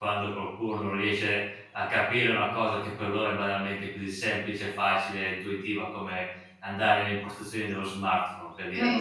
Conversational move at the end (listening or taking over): listening